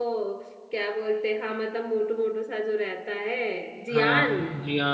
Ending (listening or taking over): taking over